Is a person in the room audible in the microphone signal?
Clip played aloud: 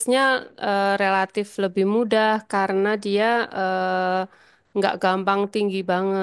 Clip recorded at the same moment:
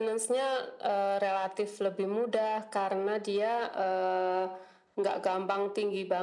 No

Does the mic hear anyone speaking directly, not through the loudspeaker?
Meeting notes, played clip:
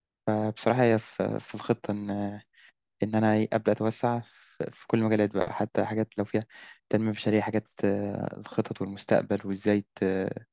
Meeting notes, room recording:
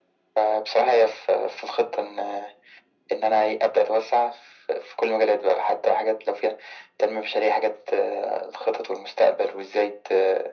No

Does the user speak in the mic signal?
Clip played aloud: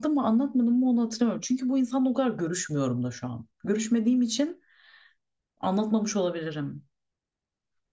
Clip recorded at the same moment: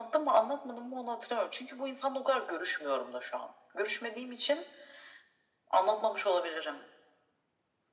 No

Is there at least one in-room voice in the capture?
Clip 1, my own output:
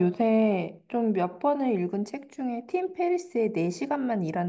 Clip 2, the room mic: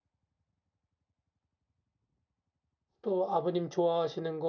Yes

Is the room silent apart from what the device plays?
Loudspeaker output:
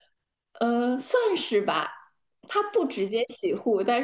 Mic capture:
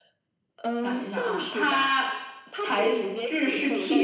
No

